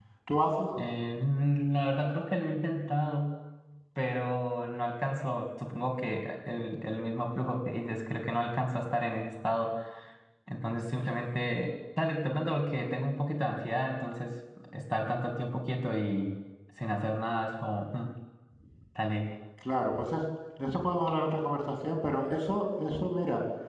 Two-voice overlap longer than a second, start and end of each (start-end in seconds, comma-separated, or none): none